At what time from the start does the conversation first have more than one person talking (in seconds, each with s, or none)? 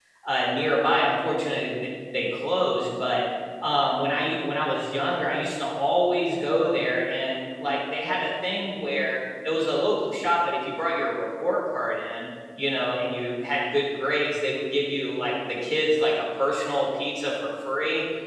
none